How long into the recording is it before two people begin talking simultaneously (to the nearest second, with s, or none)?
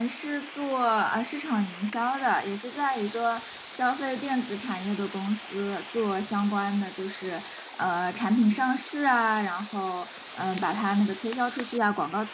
none